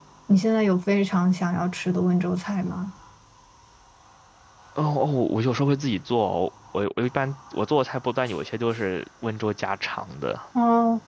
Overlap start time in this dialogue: none

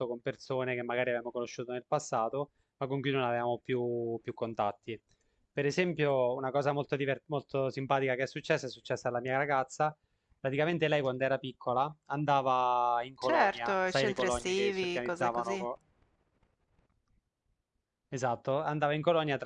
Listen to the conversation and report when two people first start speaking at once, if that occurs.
13.2 s

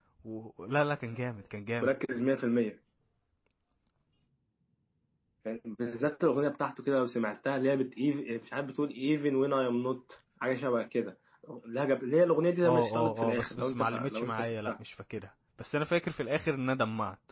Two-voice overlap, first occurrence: 12.6 s

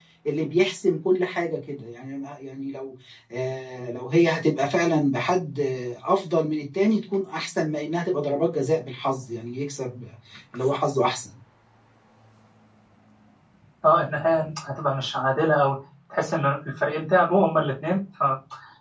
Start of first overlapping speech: none

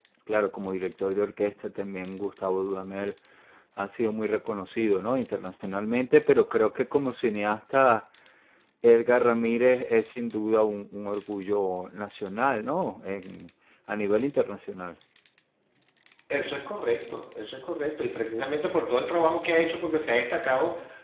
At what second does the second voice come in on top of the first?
none

